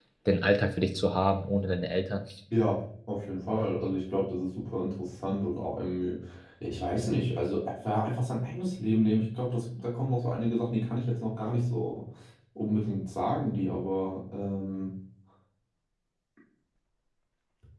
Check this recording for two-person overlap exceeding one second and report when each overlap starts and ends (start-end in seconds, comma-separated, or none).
none